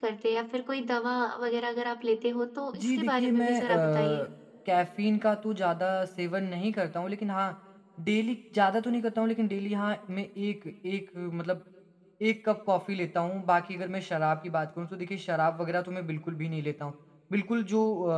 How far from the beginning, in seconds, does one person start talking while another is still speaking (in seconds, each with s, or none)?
2.7 s